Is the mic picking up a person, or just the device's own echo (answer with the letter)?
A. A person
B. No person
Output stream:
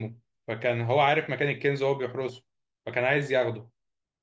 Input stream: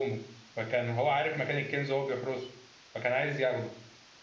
B